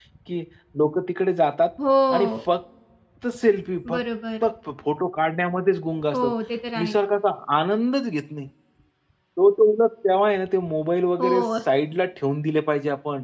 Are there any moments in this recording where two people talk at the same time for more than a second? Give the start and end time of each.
none

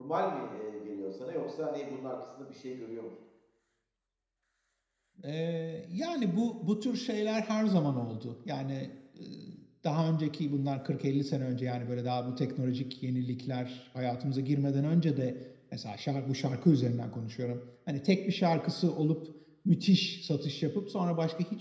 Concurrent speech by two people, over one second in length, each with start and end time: none

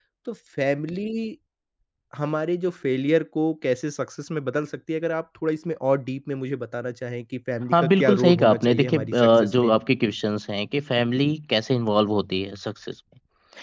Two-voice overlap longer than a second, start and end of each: 7.7-9.8

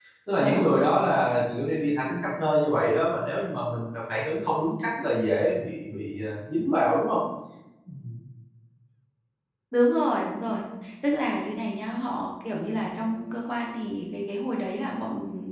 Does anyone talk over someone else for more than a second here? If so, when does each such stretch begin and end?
none

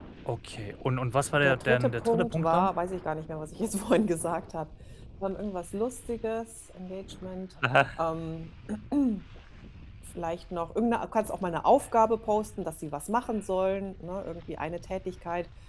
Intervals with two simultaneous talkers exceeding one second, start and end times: 1.4-2.7

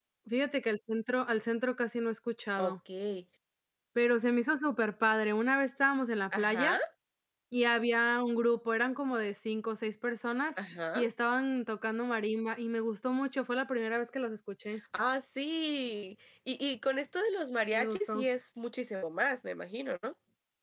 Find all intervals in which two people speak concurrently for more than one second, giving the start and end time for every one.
none

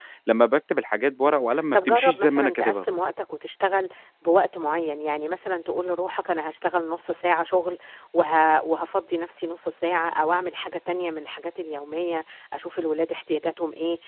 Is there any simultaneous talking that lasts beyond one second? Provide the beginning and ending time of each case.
1.2-2.9

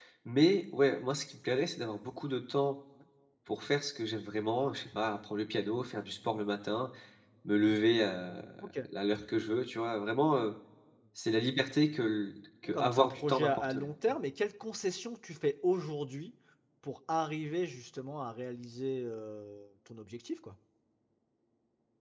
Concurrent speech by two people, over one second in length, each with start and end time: 12.7-13.9

